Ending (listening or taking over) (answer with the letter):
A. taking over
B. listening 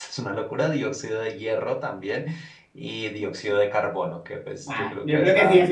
A